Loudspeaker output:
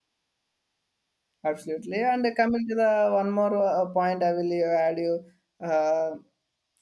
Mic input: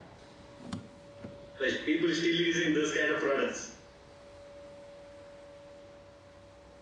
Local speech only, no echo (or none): but people still using those kind of products.